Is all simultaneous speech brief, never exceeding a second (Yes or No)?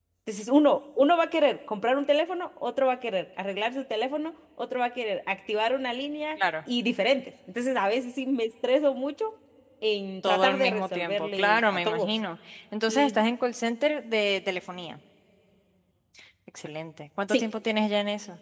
No